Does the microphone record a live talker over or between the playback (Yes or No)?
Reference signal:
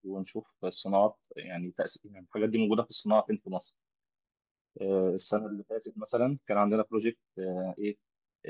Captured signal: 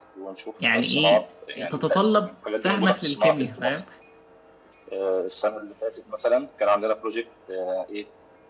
Yes